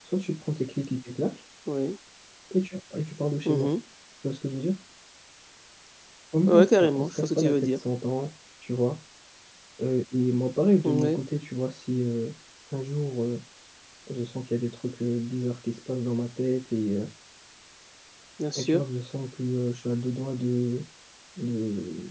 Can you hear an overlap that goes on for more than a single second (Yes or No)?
Yes